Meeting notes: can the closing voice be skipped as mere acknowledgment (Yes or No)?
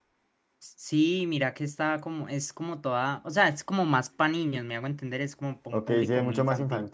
No